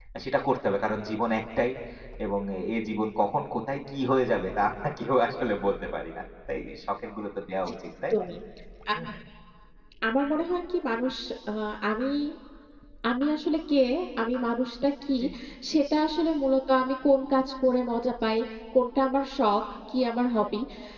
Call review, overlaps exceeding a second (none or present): none